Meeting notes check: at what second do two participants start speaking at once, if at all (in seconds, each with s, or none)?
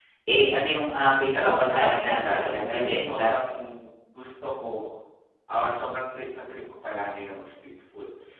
1.3 s